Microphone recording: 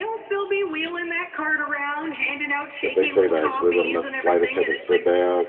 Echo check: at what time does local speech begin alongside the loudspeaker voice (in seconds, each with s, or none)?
2.8 s